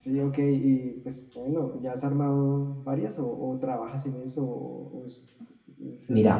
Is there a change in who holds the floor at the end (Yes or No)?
Yes